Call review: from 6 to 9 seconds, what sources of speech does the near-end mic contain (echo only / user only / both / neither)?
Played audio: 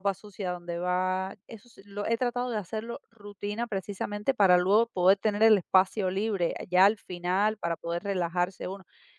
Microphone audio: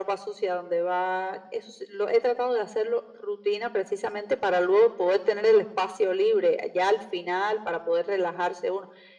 echo only